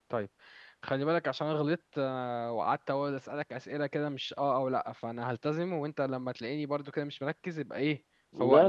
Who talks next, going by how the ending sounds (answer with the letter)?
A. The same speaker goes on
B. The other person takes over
B